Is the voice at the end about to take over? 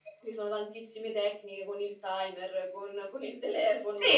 Yes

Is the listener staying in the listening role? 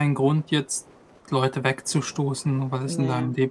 Yes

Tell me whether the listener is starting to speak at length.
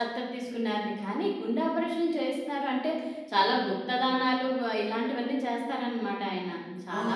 Yes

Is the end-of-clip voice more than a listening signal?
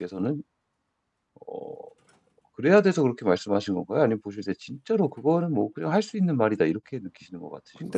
Yes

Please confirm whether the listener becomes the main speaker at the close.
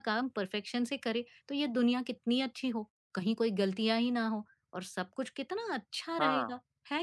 No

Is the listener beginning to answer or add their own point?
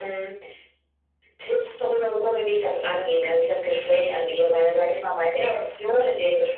No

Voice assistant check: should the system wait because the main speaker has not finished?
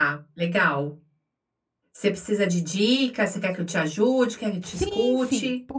No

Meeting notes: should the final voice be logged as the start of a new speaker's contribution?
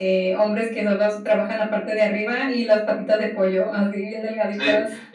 Yes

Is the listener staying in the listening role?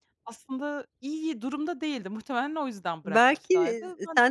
No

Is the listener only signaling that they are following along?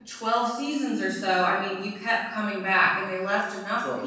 Yes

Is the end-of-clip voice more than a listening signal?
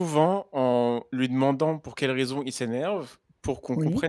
No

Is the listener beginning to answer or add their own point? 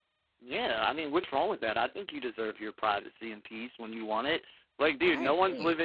No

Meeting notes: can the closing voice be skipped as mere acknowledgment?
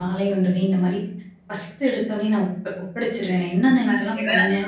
Yes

